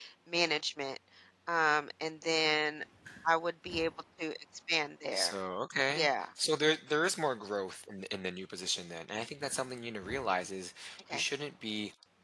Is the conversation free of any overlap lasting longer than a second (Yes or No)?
Yes